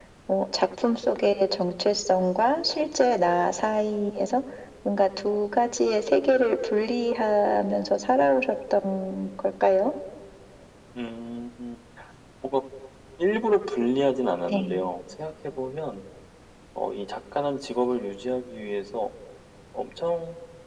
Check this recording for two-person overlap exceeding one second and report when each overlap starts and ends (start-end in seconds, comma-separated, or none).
none